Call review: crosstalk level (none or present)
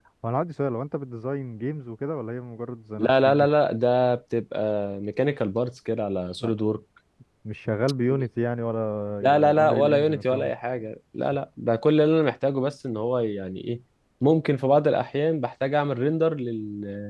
present